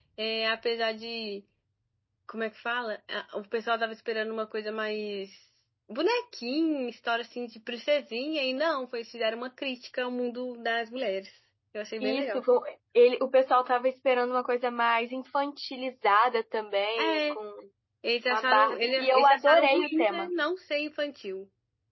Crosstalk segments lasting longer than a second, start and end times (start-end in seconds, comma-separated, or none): 18.3-20.3